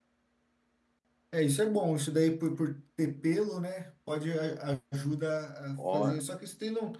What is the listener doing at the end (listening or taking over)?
listening